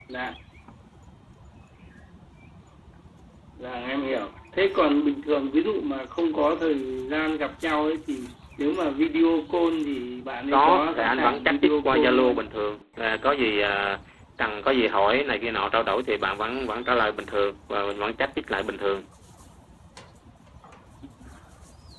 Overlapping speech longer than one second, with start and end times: 10.5-12.4

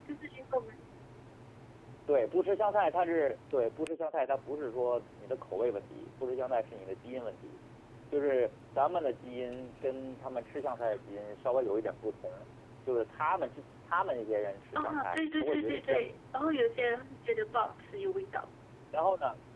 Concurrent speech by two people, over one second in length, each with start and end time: 14.8-16.1

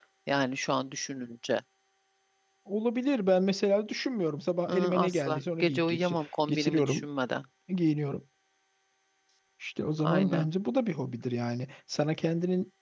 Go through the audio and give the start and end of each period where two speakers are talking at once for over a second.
4.7-7.0

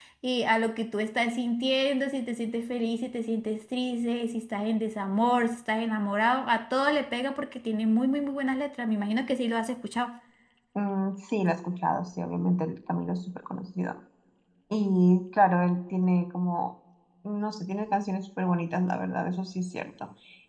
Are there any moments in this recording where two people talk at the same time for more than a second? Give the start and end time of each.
none

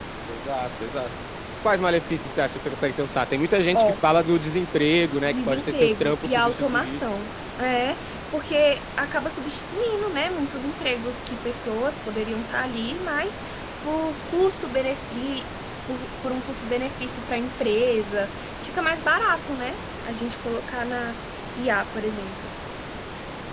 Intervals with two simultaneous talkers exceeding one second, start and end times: 5.2-7.0

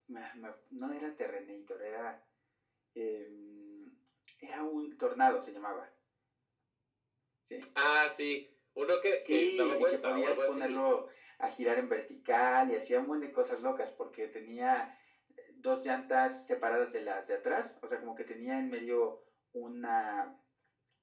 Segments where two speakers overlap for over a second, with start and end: 9.2-10.8

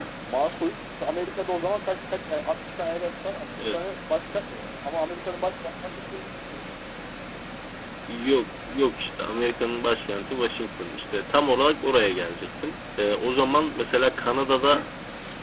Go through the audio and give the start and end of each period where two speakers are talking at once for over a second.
none

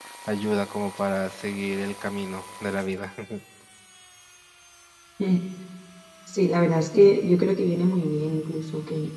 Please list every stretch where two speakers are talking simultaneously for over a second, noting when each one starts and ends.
none

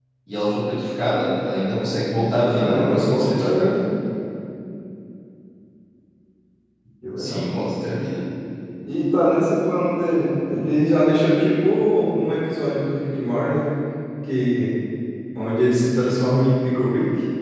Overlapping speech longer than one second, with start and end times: 2.4-3.7

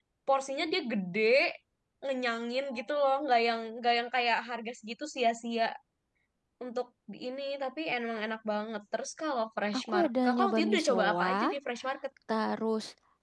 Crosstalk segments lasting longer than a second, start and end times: 9.8-11.3

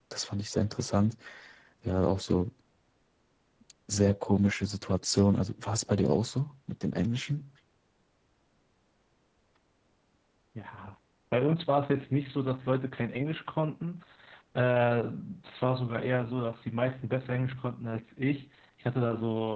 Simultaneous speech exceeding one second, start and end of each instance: none

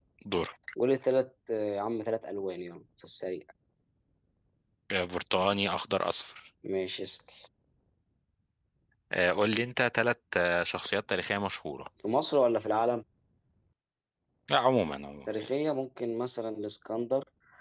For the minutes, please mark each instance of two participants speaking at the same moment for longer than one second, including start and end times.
none

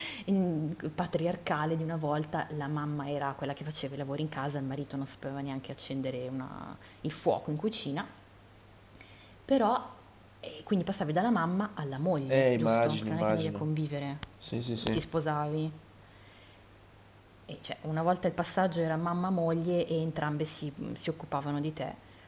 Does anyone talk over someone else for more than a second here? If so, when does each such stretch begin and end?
12.3-13.7

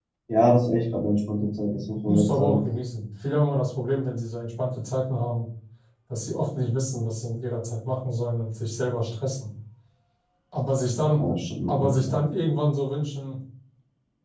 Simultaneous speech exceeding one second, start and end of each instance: none

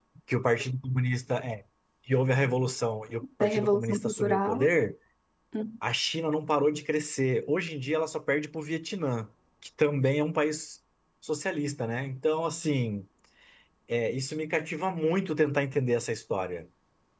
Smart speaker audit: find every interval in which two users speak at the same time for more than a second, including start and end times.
3.4-4.7

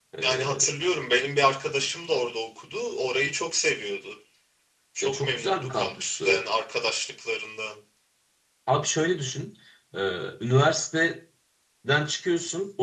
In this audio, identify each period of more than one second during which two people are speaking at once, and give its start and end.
5.0-6.4

